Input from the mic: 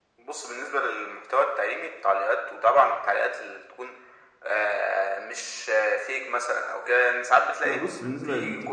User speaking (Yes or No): Yes